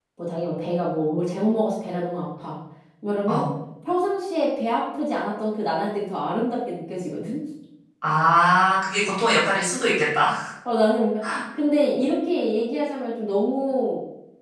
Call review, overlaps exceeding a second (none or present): none